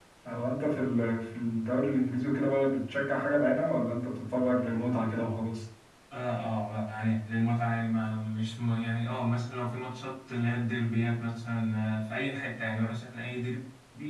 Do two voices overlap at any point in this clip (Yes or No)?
No